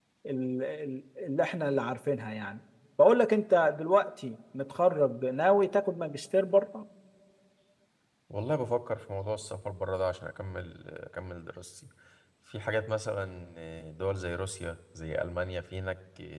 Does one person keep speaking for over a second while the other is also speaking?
No

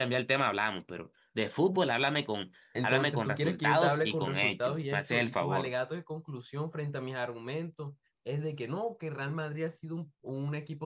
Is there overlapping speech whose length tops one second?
Yes, from 2.8 s

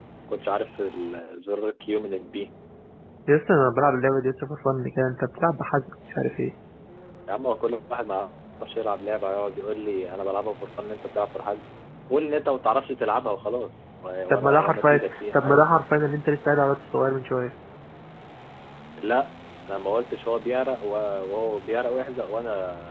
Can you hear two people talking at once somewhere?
Yes, from 14.3 s

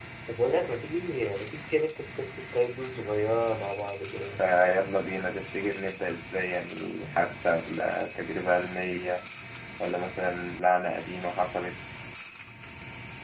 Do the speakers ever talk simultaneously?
No

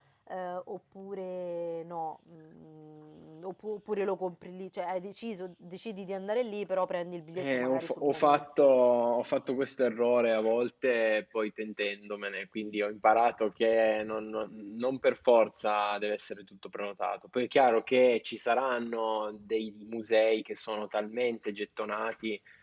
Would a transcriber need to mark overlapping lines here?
Yes, from 7.4 s

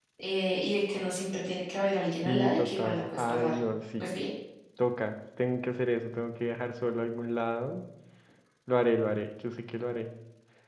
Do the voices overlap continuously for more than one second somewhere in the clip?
Yes, from 2.2 s

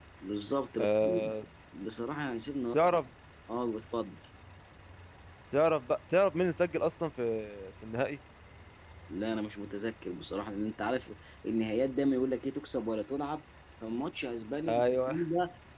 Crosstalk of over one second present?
No

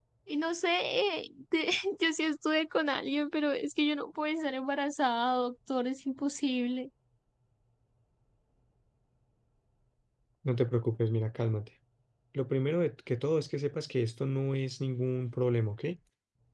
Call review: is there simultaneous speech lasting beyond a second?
No

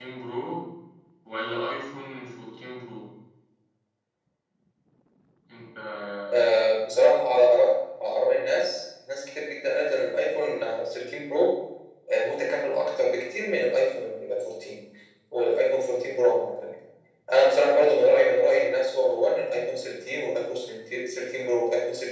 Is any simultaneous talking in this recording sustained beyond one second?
No

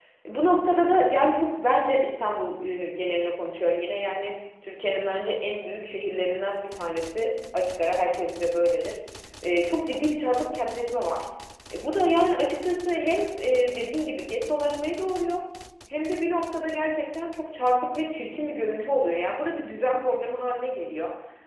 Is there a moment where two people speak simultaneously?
No

